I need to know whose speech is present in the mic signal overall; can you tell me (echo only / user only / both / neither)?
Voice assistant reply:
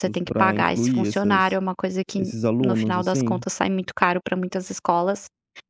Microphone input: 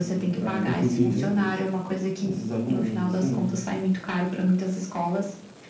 both